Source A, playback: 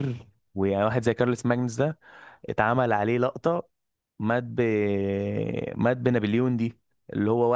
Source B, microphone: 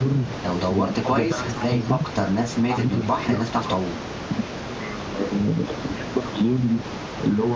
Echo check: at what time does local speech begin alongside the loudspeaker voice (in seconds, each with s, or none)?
0.4 s